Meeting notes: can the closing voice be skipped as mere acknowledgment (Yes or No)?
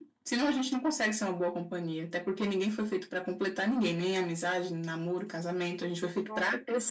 No